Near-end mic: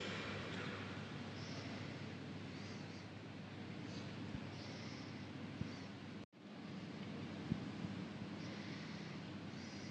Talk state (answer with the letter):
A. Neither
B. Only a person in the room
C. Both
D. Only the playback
A